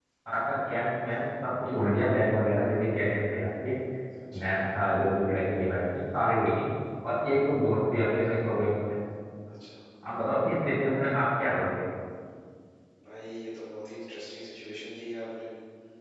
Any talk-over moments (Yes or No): No